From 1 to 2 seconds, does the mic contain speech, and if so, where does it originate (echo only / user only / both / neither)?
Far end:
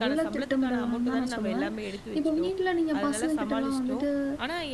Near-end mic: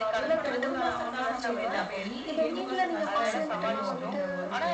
both